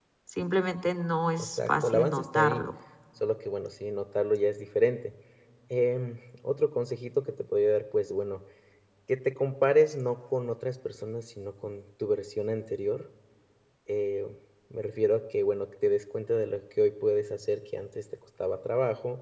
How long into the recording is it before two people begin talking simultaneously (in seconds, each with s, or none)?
1.4 s